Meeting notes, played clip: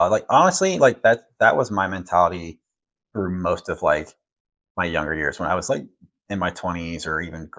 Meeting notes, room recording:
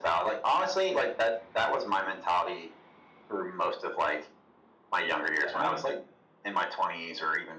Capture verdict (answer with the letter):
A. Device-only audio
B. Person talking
B